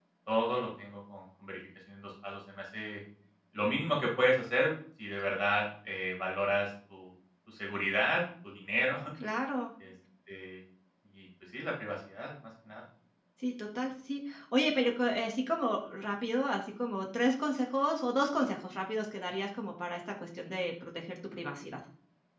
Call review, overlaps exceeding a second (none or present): none